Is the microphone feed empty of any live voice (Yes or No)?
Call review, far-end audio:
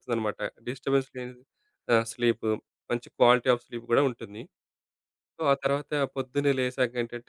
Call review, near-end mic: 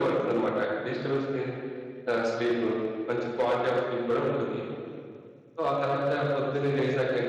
Yes